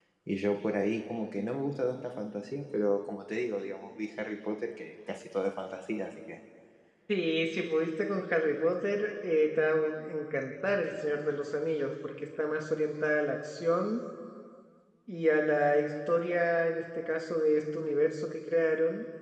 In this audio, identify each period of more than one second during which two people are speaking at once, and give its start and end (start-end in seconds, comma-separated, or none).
none